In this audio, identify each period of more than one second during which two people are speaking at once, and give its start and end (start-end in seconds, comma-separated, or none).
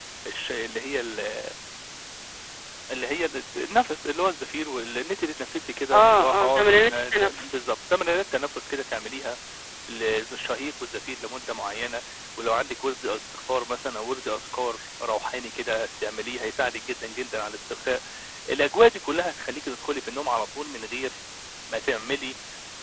5.9-7.7